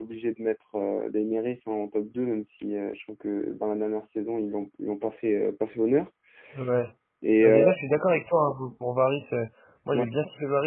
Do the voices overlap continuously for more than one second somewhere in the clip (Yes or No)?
No